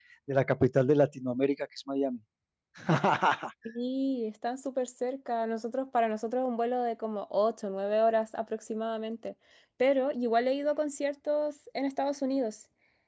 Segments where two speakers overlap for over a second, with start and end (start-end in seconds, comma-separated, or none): none